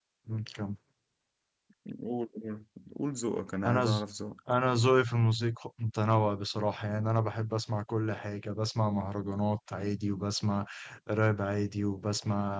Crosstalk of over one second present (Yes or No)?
No